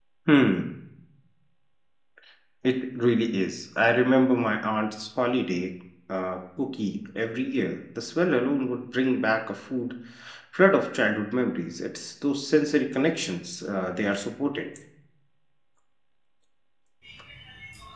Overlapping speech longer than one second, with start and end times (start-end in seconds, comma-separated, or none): none